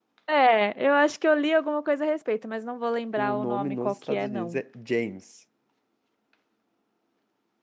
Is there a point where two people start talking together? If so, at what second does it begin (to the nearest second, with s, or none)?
3 s